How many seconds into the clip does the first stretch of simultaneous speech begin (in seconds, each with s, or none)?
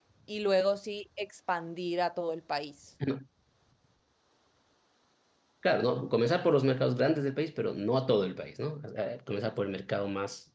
none